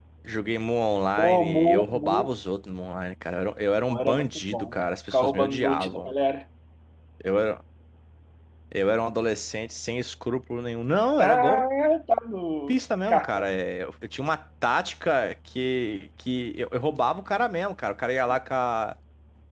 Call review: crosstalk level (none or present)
present